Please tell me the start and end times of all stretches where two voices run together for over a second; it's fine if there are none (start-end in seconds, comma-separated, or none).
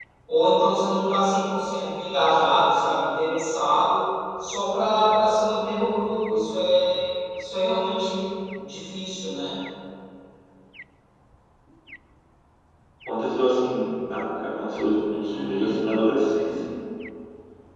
none